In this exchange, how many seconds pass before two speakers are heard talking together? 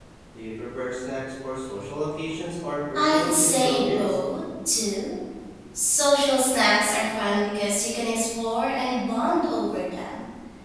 2.9 s

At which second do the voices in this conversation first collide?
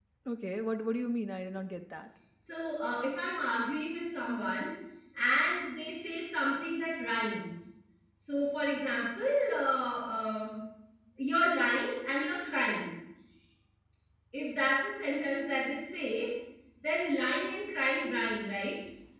none

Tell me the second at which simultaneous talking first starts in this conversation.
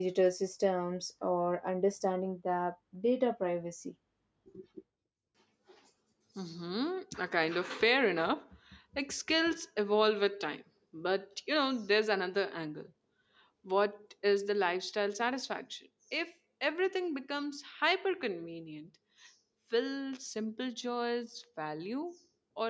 none

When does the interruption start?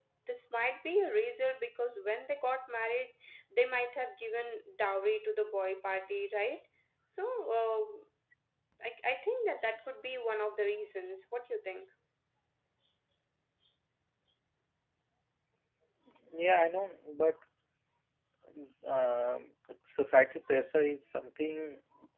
none

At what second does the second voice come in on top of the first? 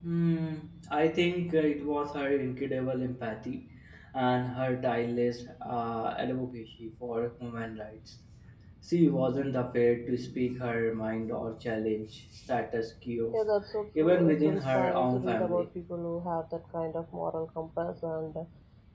14.0 s

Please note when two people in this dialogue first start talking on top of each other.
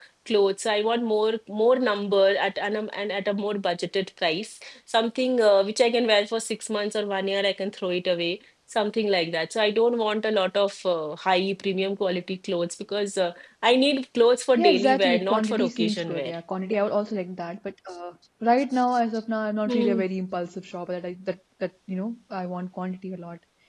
14.6 s

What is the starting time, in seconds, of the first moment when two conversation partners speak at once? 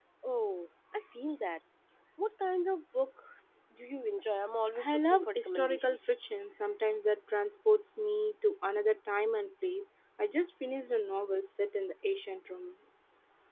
4.8 s

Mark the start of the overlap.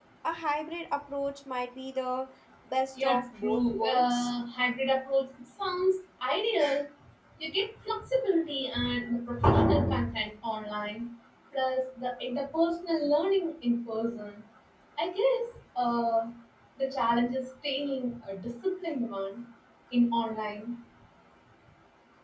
3.0 s

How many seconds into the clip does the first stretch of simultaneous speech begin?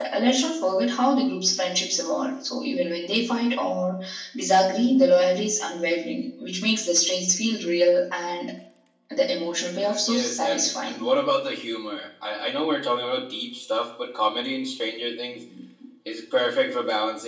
9.8 s

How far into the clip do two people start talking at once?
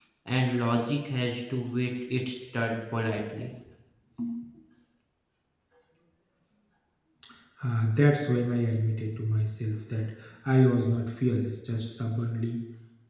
none

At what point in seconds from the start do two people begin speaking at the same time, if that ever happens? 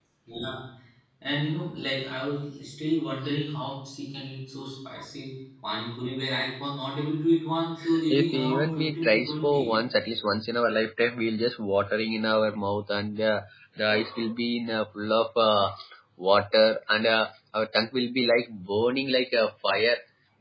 8.1 s

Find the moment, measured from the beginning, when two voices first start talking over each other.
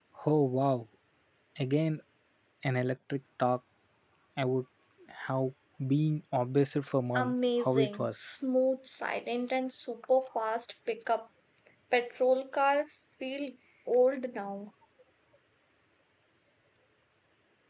7.2 s

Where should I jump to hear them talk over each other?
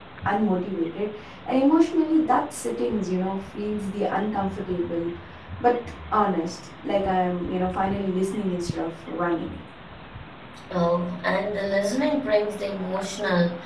none

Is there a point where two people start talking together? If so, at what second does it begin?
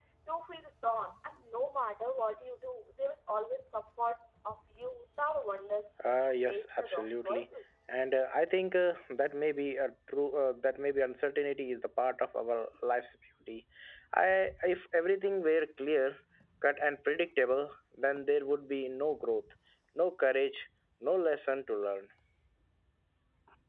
6.0 s

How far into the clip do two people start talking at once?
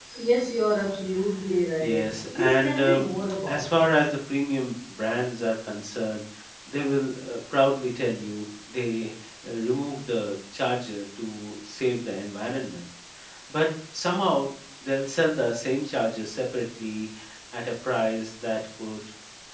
1.8 s

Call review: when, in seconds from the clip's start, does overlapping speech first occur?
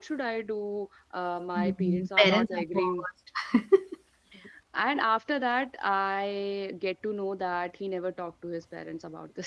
1.6 s

